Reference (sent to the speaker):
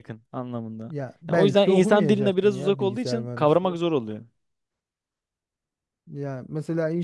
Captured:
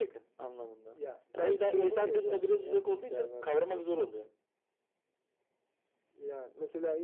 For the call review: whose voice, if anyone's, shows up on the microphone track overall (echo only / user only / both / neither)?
echo only